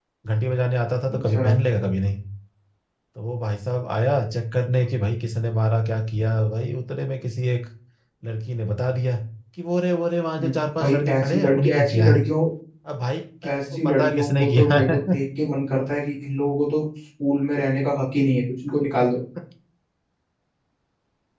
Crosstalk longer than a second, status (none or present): present